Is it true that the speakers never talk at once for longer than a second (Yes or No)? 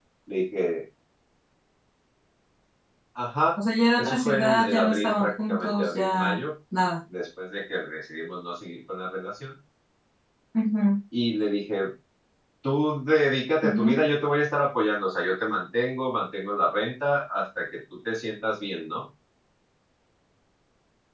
No